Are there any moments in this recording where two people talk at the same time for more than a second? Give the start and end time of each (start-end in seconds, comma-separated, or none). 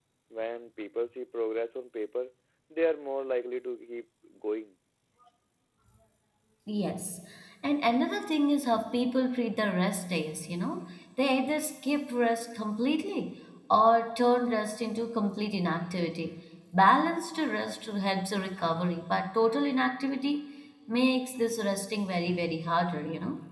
none